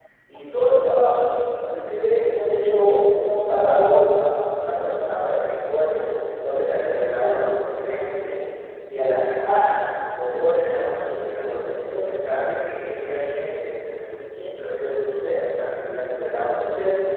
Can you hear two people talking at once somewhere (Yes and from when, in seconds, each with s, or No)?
No